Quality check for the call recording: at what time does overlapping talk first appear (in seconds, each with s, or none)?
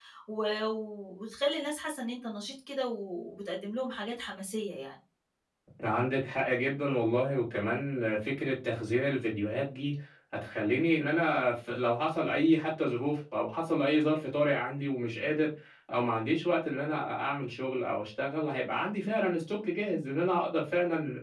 none